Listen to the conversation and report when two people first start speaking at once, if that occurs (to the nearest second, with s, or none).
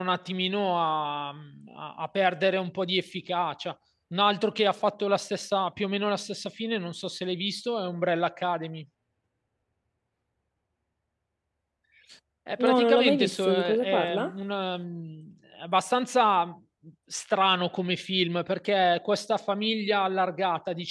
13 s